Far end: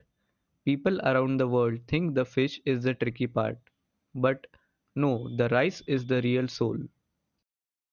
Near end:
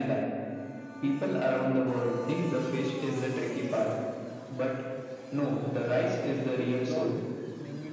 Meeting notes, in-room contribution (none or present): present